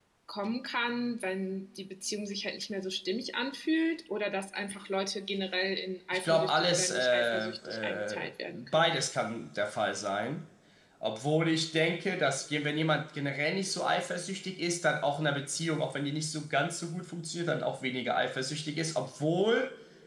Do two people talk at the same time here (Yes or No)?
Yes